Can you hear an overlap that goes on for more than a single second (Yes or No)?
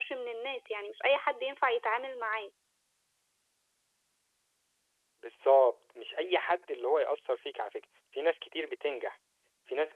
No